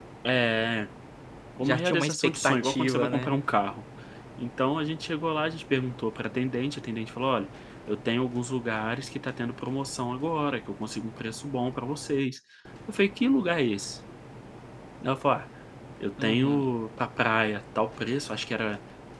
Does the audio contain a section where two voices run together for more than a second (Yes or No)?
Yes